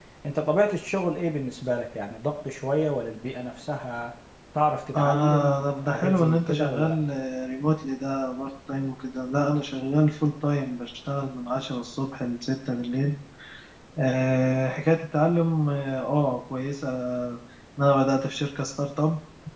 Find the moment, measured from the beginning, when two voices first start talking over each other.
5 s

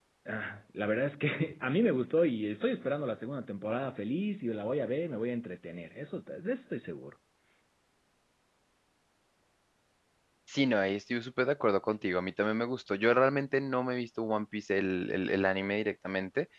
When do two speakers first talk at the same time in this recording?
none

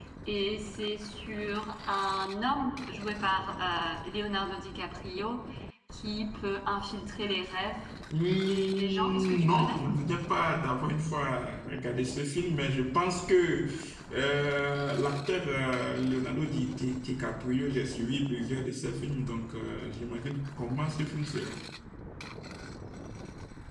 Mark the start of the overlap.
8 s

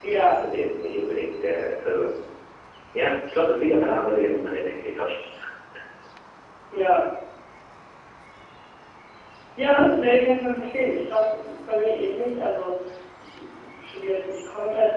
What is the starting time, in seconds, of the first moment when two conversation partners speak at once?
none

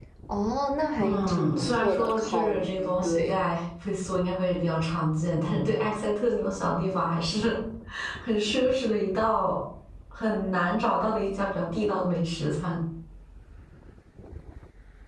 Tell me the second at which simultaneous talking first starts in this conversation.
1 s

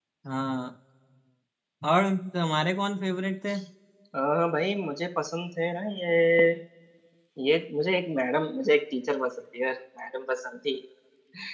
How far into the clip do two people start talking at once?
none

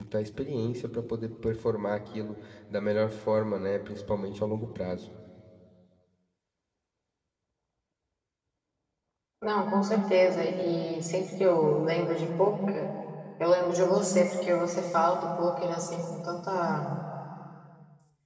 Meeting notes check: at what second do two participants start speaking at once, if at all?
none

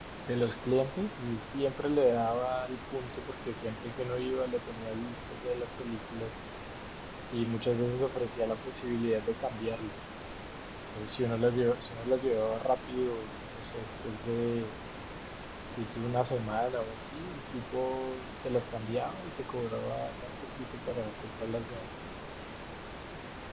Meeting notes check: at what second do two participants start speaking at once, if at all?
none

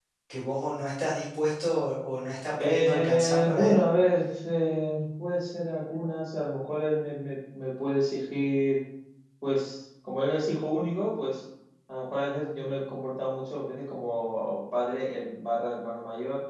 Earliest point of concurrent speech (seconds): 3 s

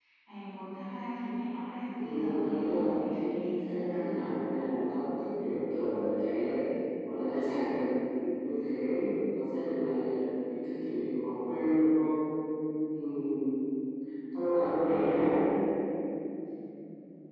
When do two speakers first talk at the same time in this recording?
2 s

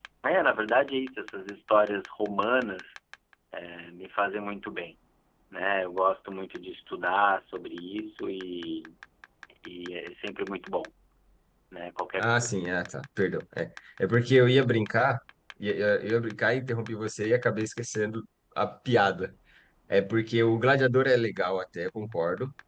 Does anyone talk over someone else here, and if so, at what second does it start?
none

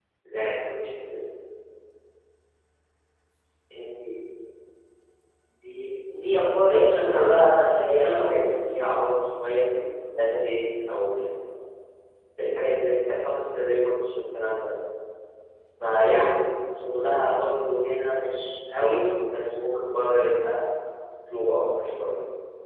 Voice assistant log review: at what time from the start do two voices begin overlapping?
7 s

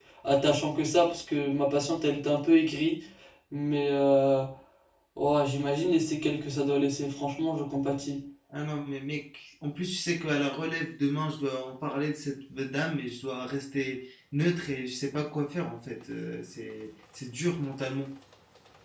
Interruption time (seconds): none

